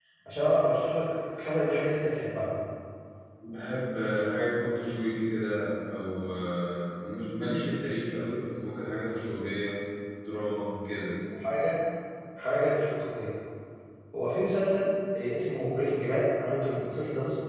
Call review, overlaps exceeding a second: none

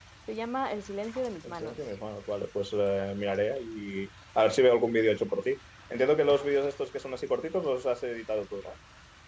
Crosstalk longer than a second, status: none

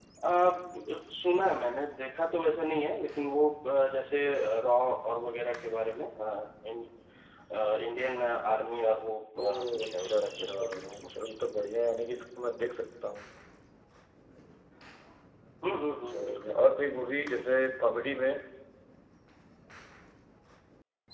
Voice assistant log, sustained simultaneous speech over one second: present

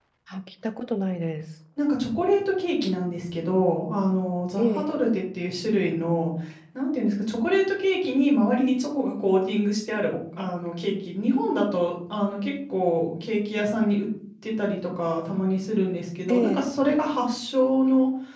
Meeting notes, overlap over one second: none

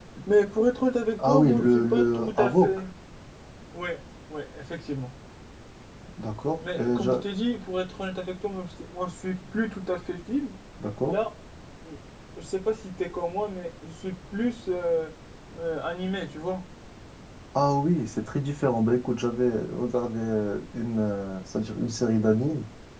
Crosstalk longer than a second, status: present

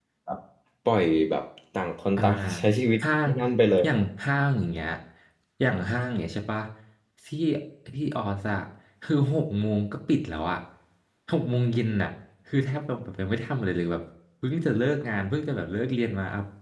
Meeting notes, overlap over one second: none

